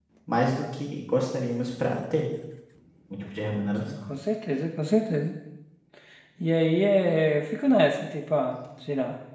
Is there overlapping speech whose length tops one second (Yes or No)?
No